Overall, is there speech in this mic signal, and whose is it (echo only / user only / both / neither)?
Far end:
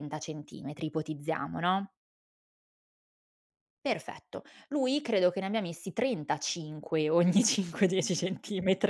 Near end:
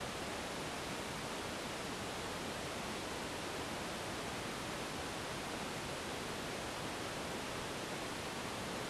neither